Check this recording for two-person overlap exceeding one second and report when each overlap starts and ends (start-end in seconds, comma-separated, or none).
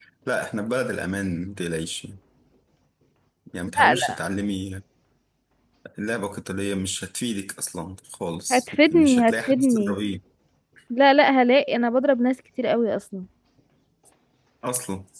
8.5-10.0